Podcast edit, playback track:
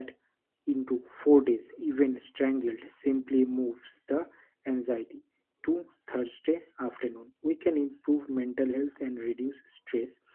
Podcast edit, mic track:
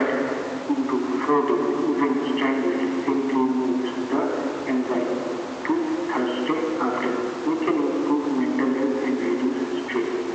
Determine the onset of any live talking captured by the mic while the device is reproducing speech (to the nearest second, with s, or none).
none